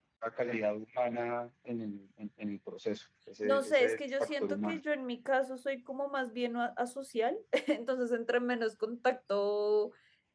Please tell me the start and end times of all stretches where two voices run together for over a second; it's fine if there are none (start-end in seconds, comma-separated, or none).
3.4-4.8